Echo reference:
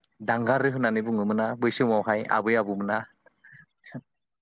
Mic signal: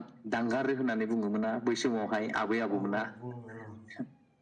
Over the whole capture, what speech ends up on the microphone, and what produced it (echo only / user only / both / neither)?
both